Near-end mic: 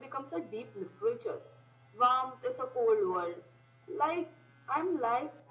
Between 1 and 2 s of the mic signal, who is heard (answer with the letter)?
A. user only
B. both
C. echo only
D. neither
C